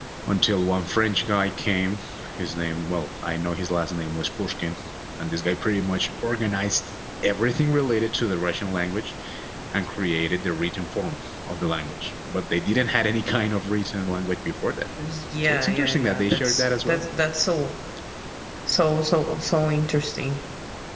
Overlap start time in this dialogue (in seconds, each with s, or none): 15.4 s